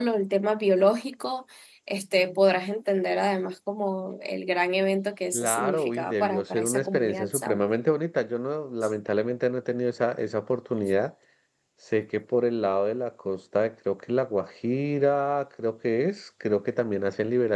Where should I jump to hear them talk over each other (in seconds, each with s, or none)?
5.3 s